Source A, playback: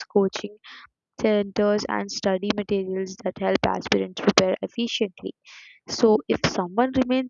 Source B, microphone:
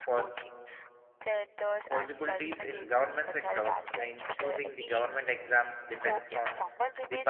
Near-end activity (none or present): present